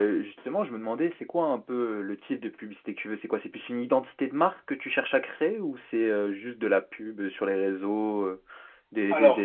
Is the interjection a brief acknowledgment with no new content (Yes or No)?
No